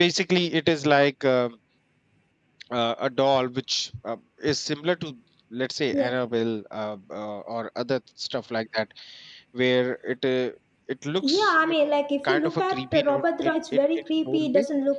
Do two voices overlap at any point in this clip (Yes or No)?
Yes